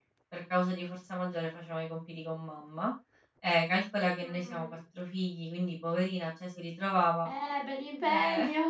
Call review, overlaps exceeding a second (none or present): none